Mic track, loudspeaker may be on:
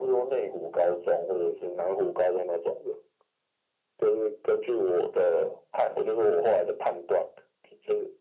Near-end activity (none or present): none